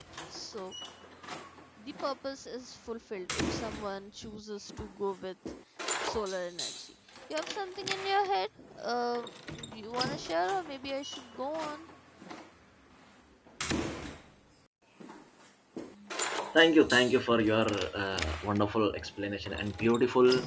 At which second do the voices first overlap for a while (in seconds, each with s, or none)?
none